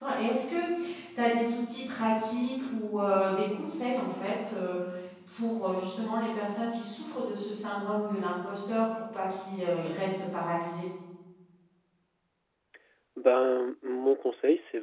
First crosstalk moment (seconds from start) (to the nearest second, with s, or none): none